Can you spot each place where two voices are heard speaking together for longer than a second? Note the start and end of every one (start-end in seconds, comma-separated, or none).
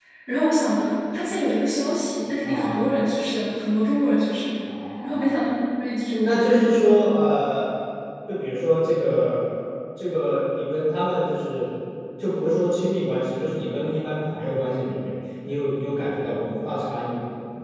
none